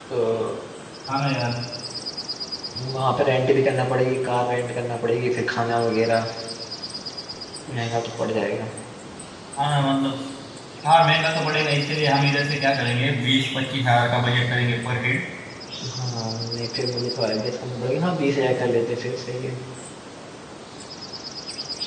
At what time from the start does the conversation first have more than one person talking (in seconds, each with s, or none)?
none